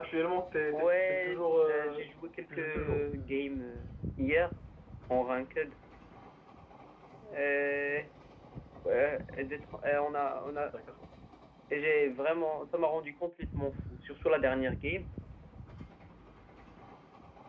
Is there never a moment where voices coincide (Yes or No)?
No